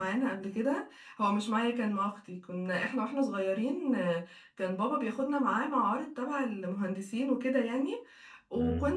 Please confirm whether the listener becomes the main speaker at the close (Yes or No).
No